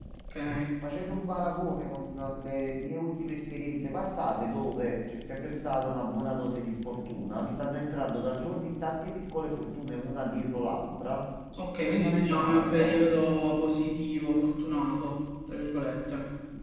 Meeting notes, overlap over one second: present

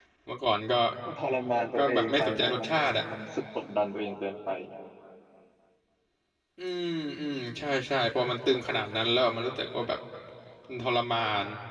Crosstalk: present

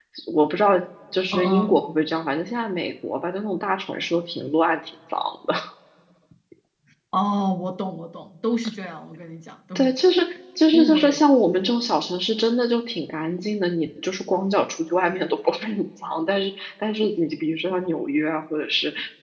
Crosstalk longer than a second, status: none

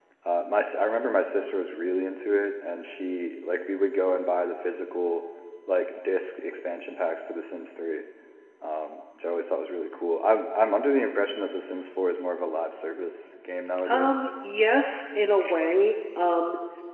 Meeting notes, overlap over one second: none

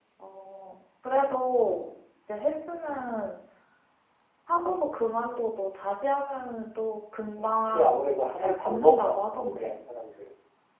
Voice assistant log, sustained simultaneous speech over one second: present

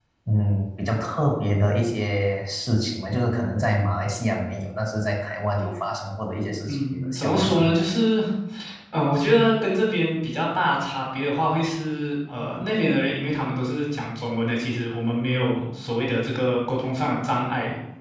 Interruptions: present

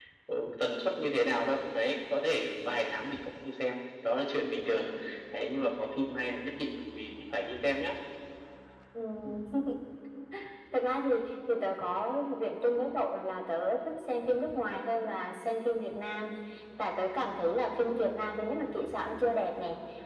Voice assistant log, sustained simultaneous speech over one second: none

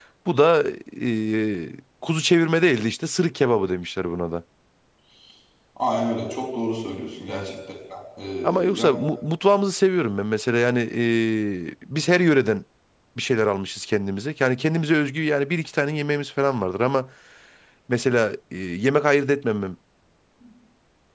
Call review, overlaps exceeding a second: none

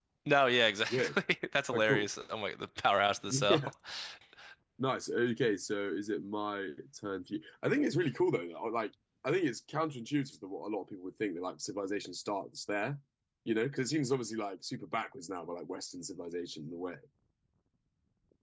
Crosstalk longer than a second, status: none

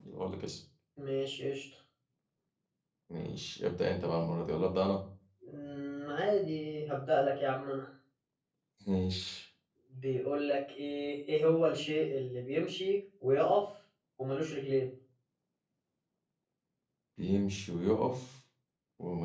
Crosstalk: none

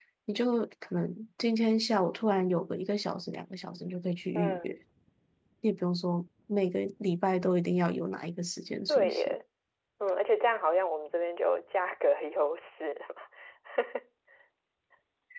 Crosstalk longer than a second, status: none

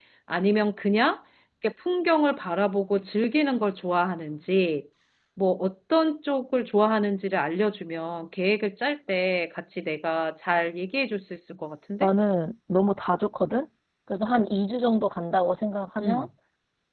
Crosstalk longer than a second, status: none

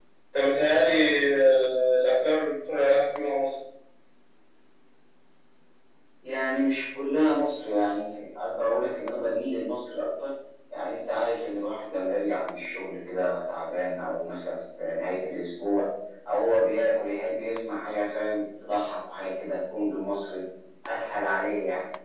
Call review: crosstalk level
none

